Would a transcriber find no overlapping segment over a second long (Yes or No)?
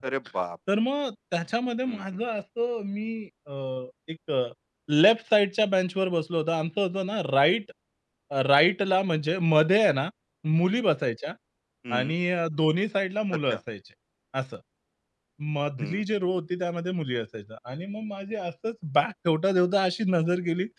Yes